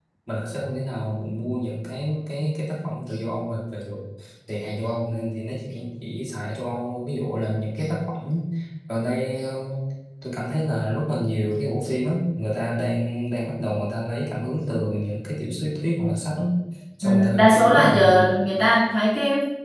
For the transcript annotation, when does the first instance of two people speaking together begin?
17.0 s

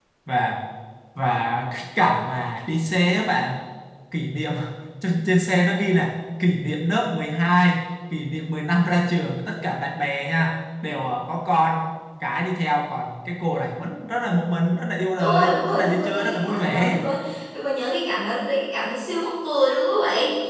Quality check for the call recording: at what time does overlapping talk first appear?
15.2 s

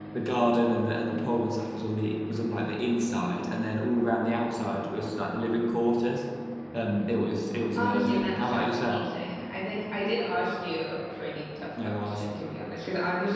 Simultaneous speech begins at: 7.8 s

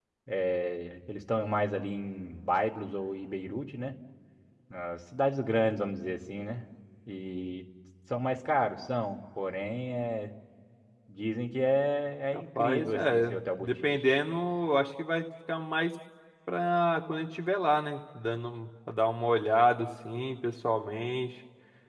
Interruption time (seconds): 12.3 s

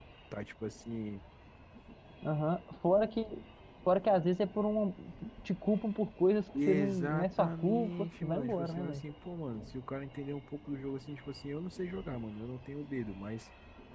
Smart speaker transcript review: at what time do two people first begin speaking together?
6.5 s

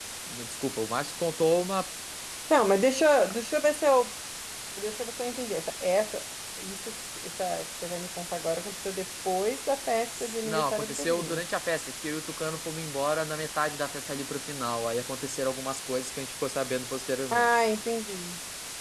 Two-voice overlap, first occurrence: 10.2 s

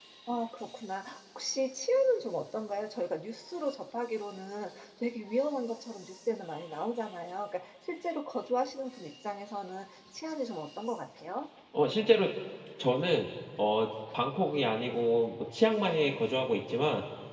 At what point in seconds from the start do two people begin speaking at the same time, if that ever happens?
none

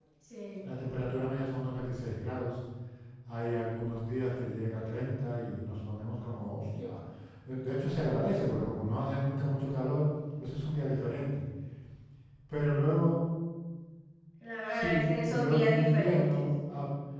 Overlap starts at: 14.7 s

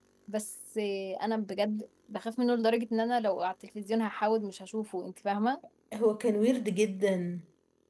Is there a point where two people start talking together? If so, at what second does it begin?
none

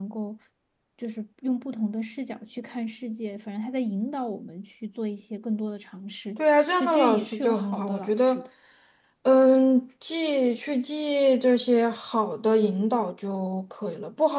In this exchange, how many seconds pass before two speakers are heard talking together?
6.8 s

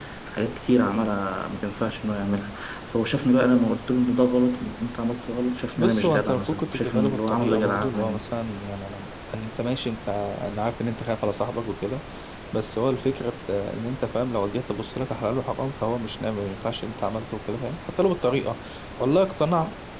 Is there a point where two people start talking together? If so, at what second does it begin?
5.8 s

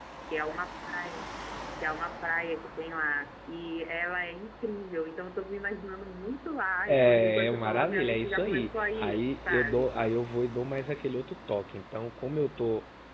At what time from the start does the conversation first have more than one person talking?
6.9 s

